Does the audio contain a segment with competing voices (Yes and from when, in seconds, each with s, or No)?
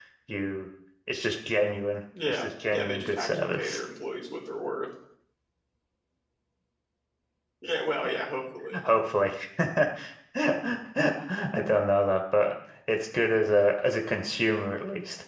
Yes, from 2.1 s